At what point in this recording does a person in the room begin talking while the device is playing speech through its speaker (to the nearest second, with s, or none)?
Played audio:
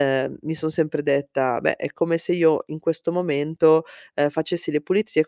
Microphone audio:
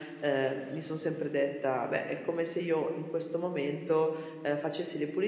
none